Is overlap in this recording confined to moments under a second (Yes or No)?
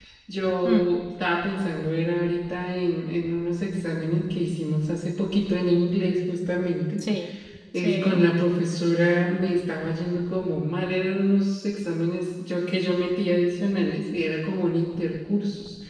Yes